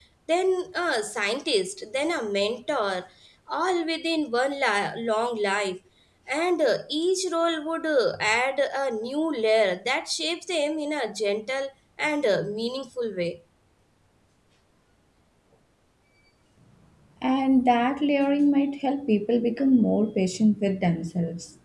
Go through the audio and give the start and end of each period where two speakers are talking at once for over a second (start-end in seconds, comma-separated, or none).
none